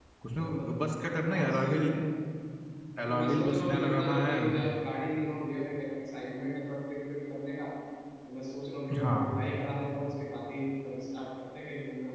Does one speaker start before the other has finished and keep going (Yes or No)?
Yes